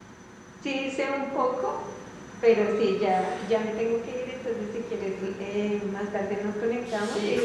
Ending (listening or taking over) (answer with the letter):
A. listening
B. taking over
A